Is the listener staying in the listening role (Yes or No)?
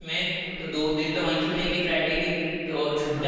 Yes